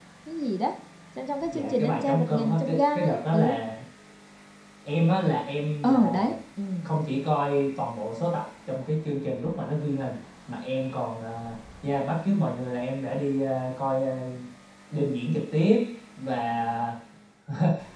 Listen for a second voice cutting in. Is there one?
Yes, from 1.5 s

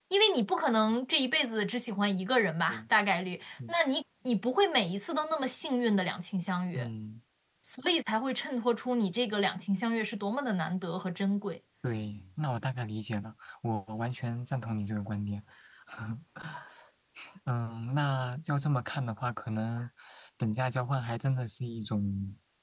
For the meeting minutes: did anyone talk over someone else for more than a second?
No

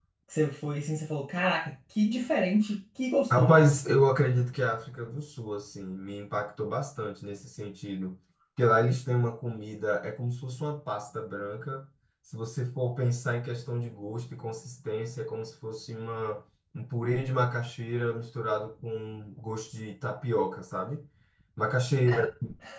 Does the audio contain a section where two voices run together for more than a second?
No

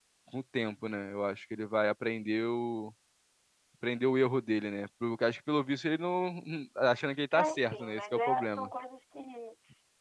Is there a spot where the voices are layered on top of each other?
Yes, from 7.3 s

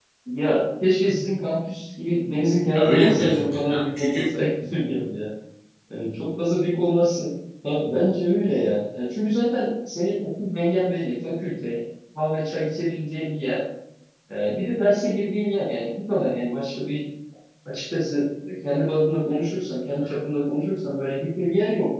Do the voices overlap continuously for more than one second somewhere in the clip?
Yes, from 2.8 s

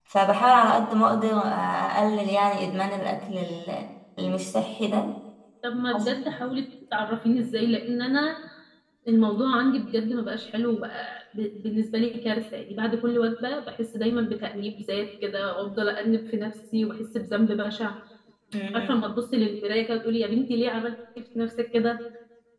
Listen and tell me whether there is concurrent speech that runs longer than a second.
No

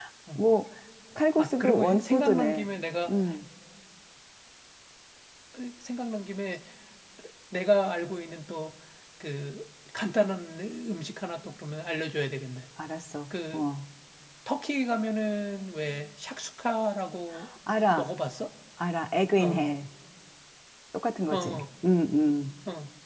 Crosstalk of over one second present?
Yes, from 1.4 s

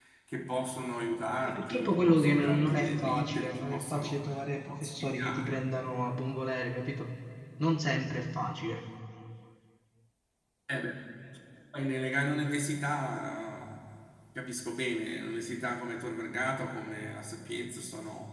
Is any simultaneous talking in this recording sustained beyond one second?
Yes, from 1.4 s

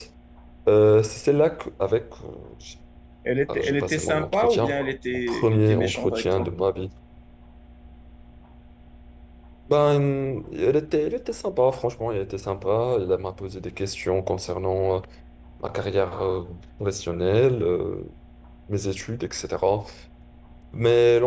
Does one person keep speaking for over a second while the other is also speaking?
Yes, from 3.5 s

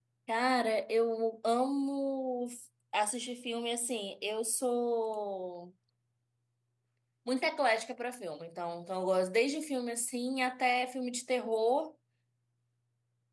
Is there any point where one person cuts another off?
No

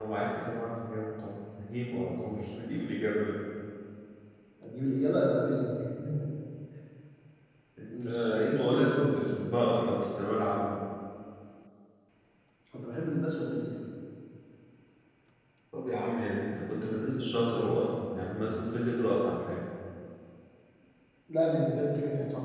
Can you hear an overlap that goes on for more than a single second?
Yes, from 8.0 s

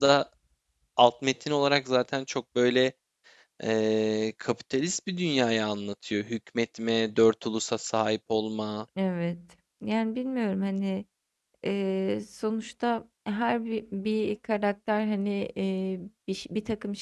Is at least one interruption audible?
No

